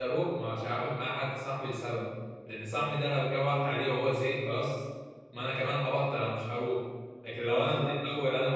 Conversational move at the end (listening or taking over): listening